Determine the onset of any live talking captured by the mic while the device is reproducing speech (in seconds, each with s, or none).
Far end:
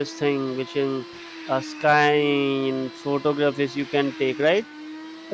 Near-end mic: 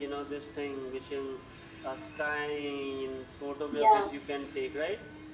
3.7 s